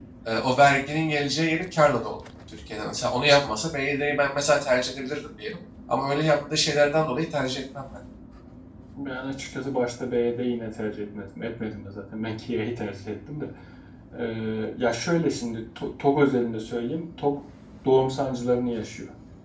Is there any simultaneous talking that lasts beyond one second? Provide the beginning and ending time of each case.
none

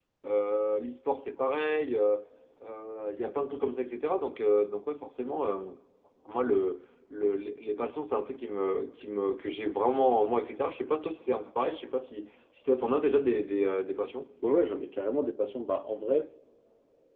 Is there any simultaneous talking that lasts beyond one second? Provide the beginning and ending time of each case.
none

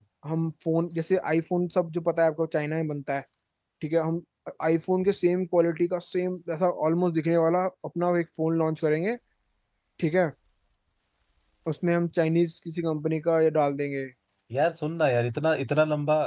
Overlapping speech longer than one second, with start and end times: none

